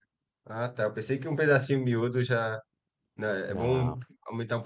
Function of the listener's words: listening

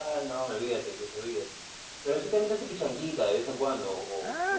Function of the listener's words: taking over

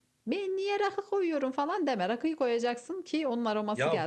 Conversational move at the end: taking over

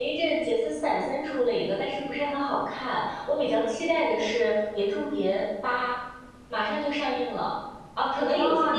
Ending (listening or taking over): listening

